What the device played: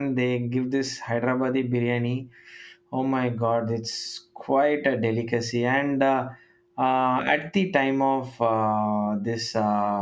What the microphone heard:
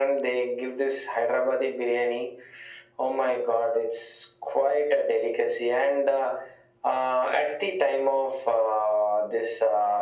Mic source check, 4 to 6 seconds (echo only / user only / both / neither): echo only